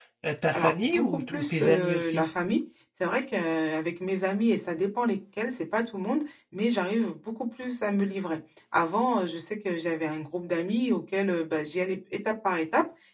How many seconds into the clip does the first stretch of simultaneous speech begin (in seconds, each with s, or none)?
0.5 s